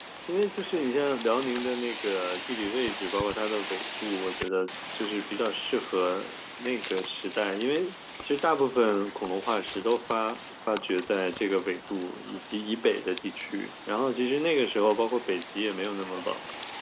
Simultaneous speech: No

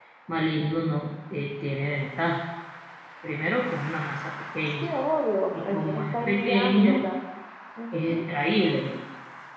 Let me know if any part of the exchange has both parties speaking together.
Yes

